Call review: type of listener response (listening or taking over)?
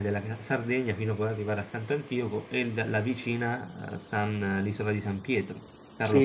taking over